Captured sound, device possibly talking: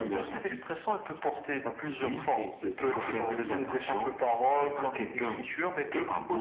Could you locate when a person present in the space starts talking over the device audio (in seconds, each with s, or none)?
2.1 s